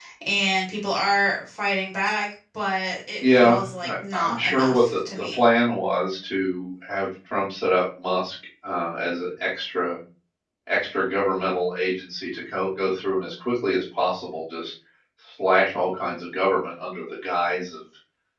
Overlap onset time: 3.2 s

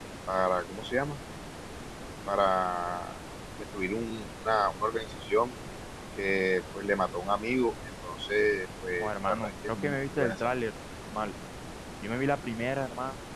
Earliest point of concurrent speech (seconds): 9.0 s

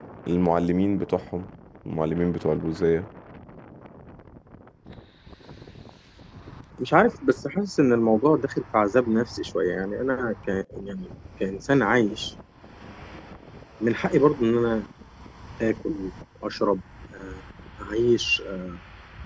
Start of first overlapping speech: none

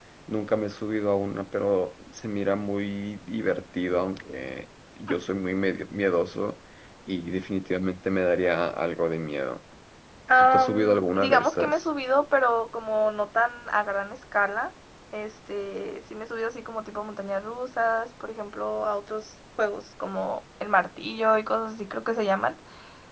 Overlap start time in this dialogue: 10.4 s

